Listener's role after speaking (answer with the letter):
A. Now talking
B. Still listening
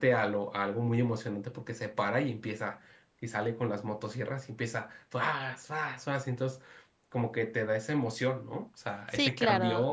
A